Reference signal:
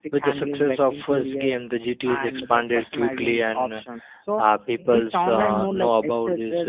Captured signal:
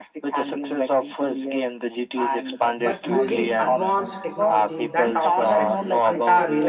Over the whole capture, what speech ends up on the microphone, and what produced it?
both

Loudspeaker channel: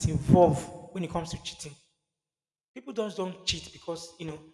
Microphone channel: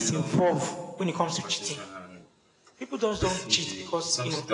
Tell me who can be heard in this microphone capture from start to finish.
both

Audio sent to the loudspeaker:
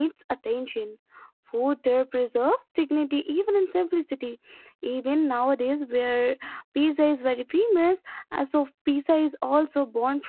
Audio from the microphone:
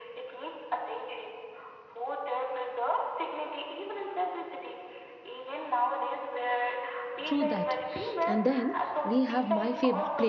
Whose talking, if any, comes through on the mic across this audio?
both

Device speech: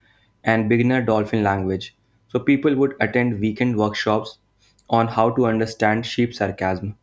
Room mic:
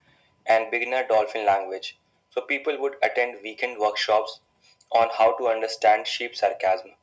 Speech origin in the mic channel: echo only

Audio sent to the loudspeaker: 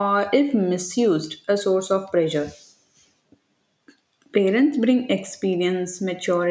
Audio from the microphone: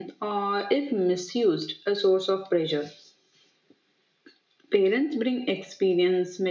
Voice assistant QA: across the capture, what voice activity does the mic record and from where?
echo only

